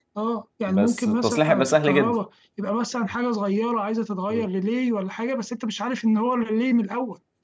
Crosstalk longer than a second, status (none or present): present